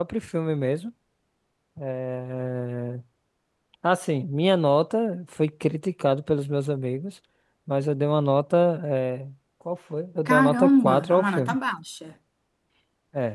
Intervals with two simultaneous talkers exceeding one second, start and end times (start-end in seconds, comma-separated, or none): 10.3-11.6